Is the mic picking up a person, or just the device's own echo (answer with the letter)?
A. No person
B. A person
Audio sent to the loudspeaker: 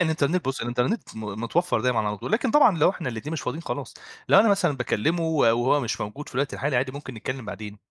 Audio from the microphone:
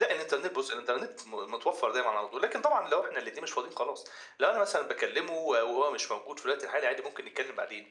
A